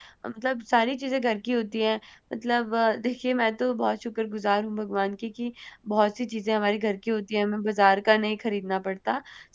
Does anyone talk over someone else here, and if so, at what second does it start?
none

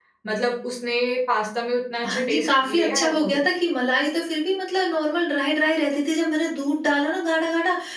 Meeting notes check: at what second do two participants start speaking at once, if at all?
2.0 s

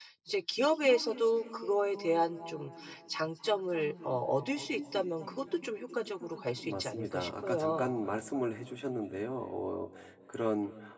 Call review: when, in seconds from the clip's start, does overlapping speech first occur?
6.6 s

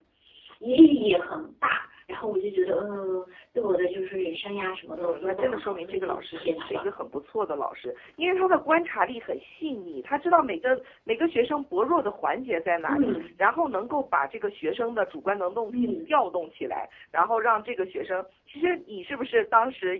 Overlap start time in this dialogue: 5.0 s

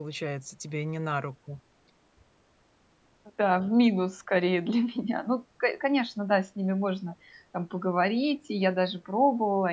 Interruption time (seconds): none

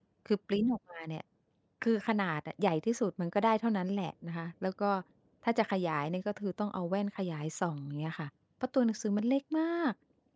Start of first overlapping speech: none

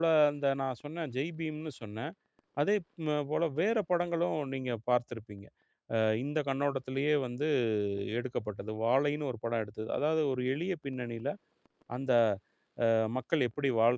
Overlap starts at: none

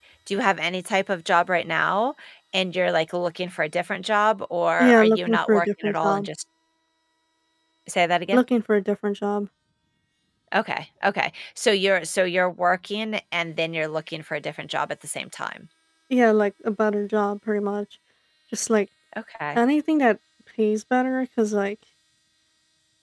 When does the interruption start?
4.8 s

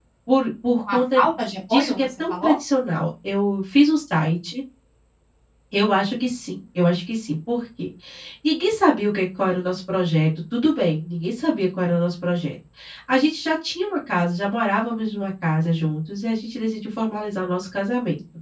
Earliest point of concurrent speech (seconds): 0.9 s

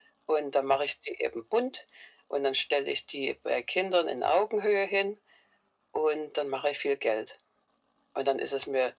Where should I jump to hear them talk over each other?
none

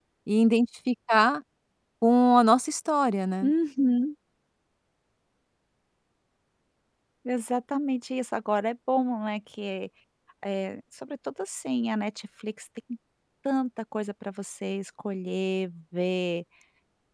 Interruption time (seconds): none

